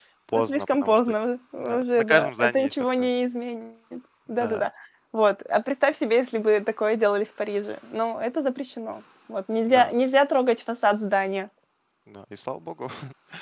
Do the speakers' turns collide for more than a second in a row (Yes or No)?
Yes